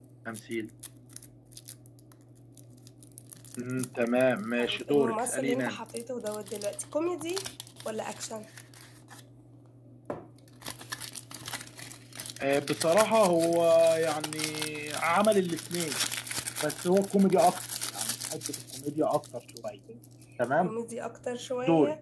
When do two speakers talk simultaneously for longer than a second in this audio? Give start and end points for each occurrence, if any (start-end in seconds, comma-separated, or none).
4.6-5.8